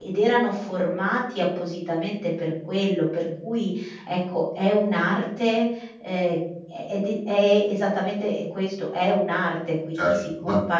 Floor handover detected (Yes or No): Yes